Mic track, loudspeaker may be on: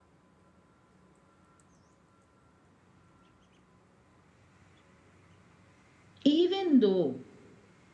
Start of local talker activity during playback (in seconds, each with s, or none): 6.2 s